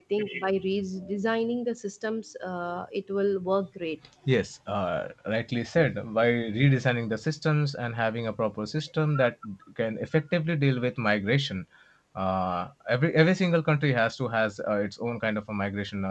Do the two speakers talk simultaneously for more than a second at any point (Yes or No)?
No